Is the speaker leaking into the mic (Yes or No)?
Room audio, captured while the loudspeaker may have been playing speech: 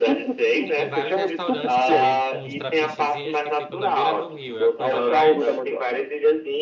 Yes